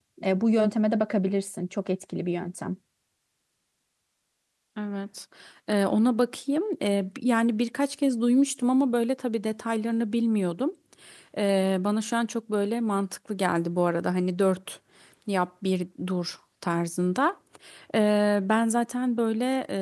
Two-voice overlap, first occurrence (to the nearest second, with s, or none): none